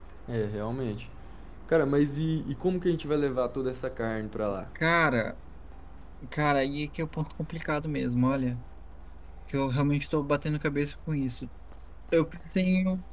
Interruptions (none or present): none